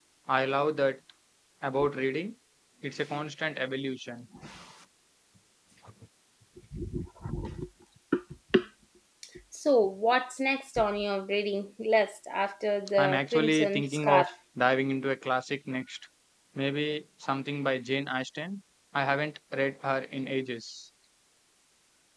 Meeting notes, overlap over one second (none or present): present